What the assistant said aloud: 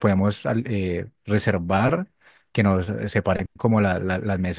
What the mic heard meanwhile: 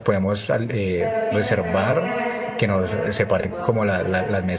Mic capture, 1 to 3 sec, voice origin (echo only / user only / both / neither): both